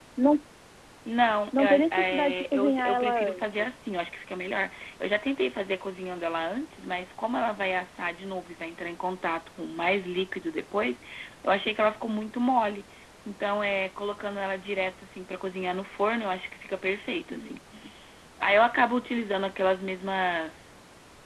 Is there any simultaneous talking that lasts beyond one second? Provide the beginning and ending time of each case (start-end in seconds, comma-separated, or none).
1.6-3.6